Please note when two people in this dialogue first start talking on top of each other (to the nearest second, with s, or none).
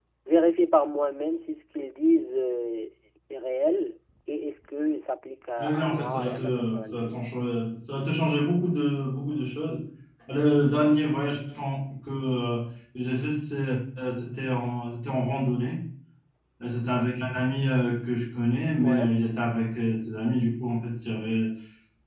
6 s